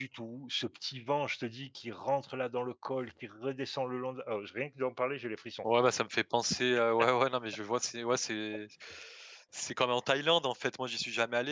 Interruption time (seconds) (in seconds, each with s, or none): none